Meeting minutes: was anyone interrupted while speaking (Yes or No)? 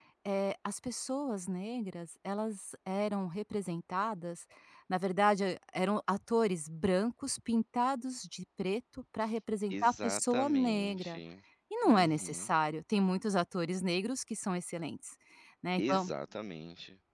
Yes